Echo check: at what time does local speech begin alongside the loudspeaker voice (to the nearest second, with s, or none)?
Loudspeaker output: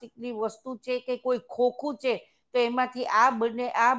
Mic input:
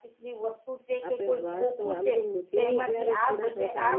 1 s